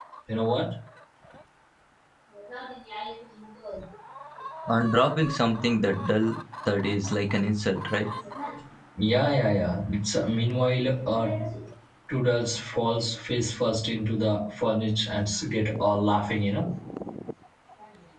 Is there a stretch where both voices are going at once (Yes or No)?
No